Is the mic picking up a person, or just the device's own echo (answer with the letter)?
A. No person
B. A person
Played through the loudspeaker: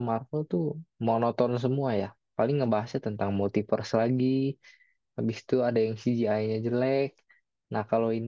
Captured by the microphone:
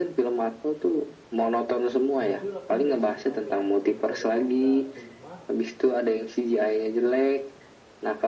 B